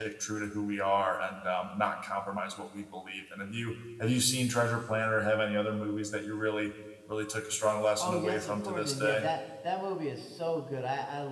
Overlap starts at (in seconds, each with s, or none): 8.0 s